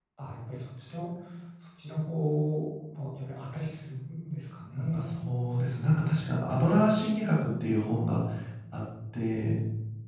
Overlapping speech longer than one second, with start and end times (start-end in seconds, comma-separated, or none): none